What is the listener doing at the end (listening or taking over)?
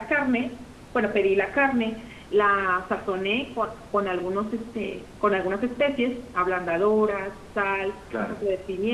listening